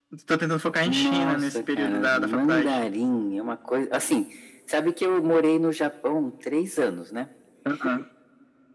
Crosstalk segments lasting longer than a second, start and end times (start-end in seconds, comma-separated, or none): 0.8-2.8